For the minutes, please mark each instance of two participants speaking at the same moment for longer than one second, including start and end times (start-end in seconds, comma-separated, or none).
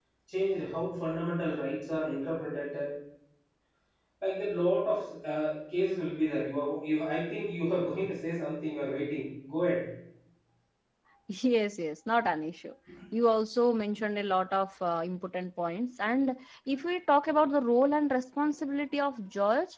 none